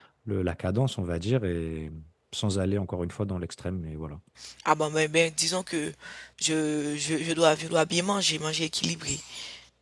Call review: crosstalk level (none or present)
none